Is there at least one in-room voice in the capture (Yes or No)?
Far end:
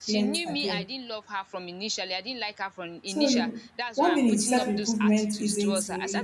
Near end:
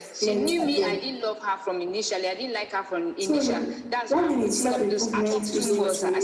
Yes